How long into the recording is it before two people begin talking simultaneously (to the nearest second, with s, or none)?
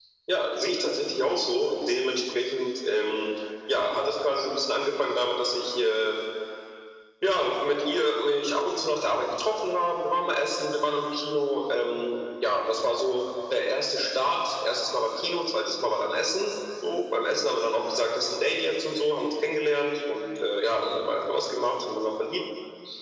none